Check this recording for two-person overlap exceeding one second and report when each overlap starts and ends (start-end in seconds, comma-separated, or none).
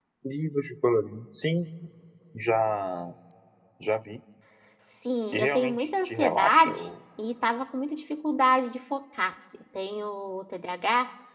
5.3-6.8